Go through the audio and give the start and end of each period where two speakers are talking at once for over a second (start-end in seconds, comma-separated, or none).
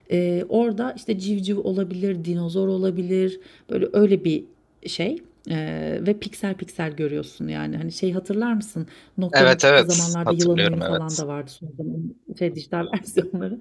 9.3-11.2